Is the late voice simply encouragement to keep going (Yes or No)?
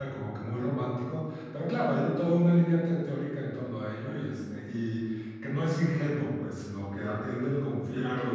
Yes